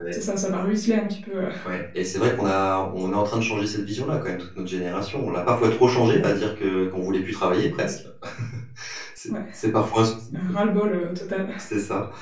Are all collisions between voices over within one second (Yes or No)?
Yes